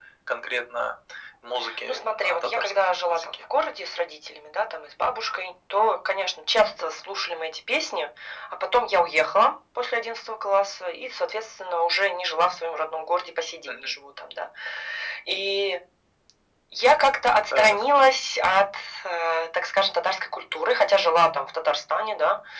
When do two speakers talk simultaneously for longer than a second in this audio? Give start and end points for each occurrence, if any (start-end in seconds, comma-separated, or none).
1.8-3.4